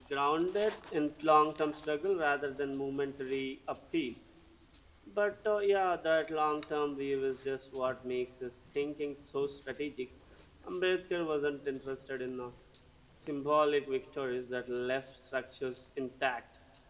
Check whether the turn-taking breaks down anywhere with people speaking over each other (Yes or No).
No